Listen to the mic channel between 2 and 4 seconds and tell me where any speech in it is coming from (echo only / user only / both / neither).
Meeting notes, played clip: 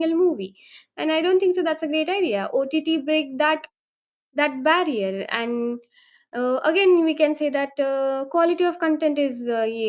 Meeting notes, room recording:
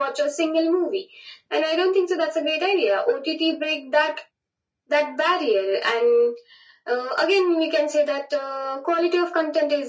echo only